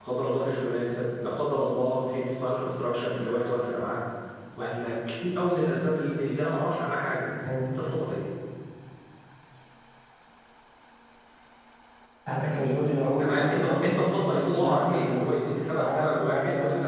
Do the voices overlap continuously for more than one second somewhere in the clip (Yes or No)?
Yes